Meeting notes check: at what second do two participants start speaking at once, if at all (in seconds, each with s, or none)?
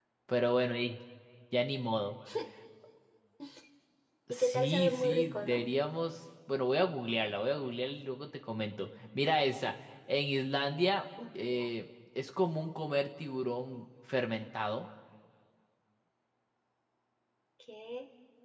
4.3 s